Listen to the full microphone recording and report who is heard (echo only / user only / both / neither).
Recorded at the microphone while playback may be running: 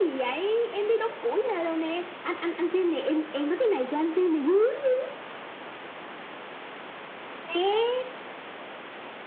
echo only